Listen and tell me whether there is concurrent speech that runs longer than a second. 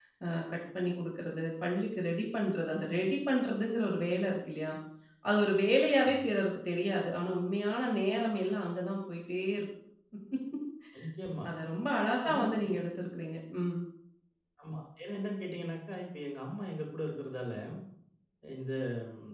No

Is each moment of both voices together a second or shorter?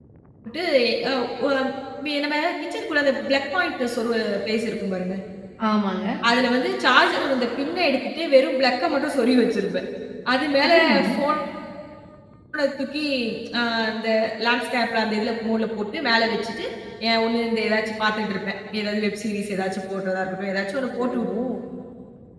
Yes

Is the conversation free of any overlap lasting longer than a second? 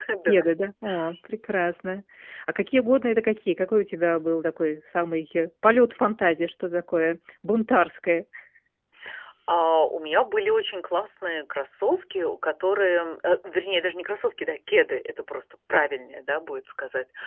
Yes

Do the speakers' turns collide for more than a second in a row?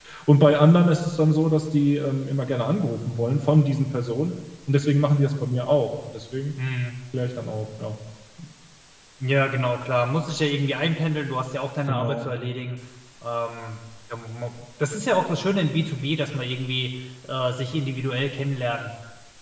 No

